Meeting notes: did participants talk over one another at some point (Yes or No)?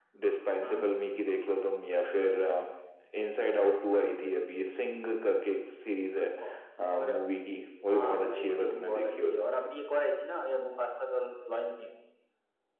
Yes